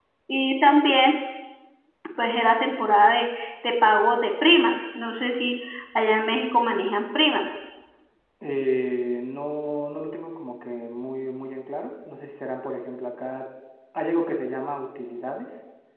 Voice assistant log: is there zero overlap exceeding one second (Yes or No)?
Yes